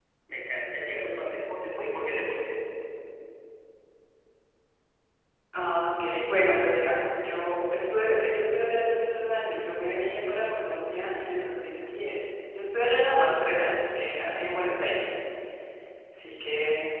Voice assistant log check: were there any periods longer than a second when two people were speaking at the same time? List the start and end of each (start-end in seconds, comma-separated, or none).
none